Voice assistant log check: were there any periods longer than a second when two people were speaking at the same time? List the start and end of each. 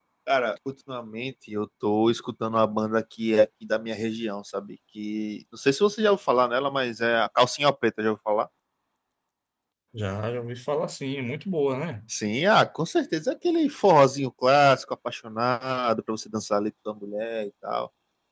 none

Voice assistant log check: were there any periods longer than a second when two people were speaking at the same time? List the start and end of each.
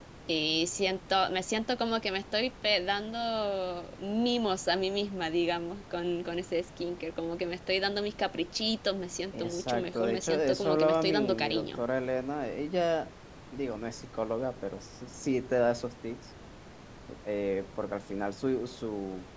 9.4-11.8

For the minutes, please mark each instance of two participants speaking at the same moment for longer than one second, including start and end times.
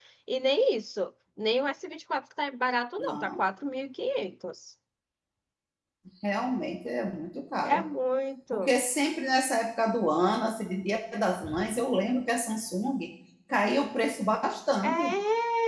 none

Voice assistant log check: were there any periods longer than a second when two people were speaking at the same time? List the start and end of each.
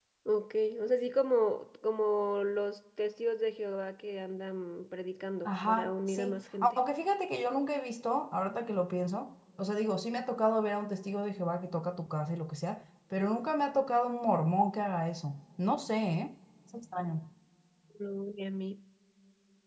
5.4-6.8

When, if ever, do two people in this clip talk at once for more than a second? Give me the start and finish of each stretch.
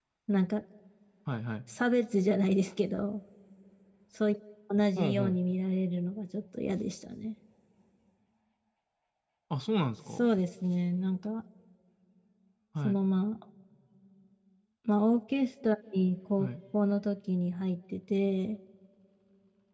none

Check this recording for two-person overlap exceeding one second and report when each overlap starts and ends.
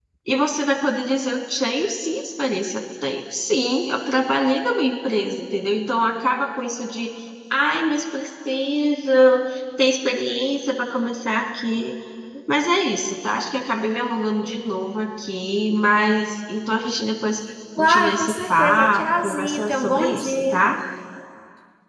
17.8-20.6

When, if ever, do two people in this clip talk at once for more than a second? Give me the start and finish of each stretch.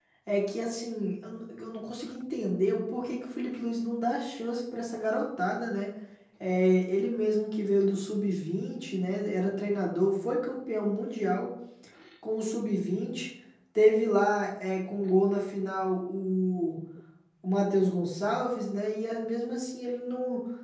none

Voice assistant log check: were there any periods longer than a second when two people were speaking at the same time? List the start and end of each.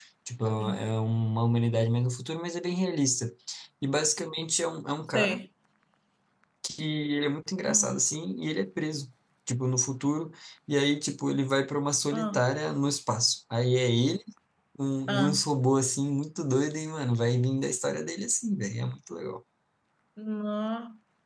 none

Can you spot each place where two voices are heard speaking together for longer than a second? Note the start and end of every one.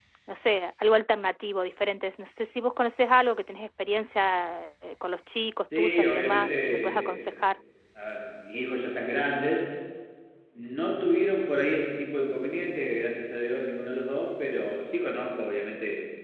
5.8-7.2

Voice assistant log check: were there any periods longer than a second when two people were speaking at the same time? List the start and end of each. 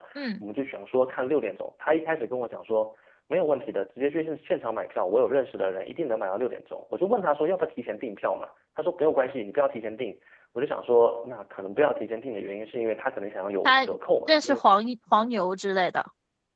none

